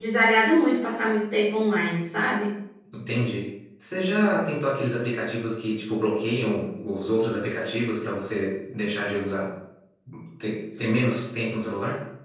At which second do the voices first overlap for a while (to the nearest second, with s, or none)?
none